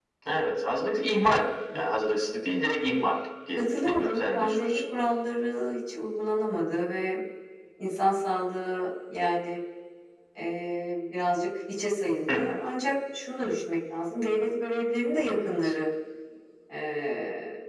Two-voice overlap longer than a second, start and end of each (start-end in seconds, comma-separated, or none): 3.6-4.8